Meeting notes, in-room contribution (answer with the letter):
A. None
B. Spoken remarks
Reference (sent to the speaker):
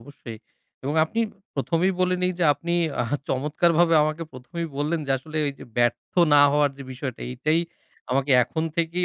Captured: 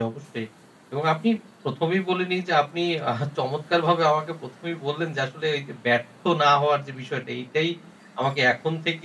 A